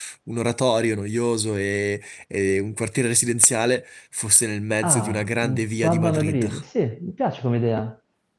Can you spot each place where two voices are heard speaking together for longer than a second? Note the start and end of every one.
4.8-6.5

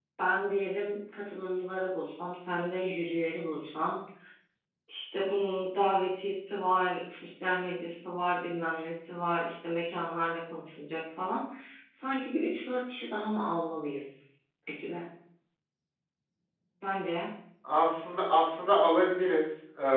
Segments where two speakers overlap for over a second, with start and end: none

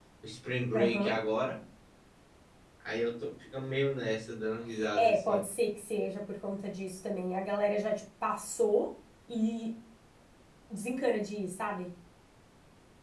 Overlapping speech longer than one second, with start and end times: none

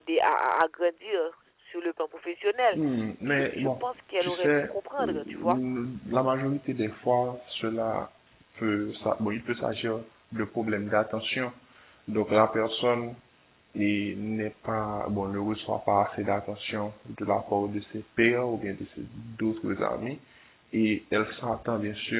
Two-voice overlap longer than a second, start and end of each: 4.2-5.6

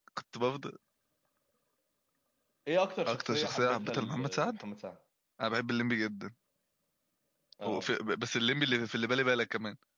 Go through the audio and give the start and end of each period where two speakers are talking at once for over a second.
3.1-4.5

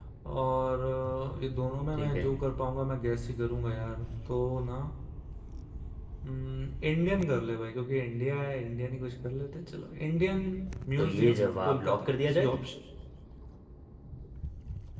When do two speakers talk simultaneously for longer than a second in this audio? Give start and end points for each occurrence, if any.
11.0-12.5

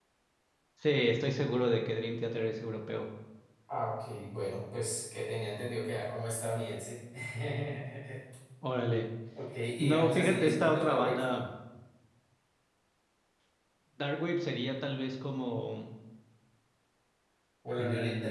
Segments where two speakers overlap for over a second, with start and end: 9.8-11.2

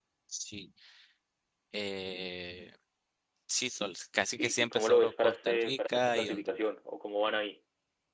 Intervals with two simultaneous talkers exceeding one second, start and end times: 4.3-6.7

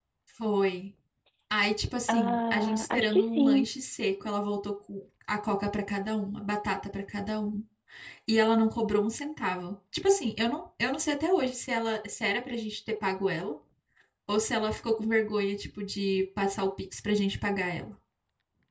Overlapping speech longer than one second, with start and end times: 2.1-3.6

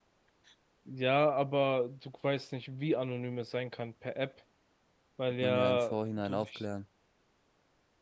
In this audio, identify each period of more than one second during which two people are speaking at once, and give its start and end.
5.4-6.6

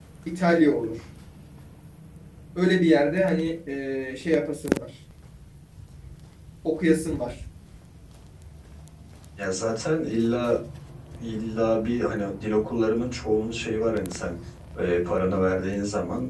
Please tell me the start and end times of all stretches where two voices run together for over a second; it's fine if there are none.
none

